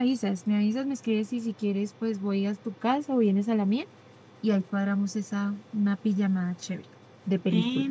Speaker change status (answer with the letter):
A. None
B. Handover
B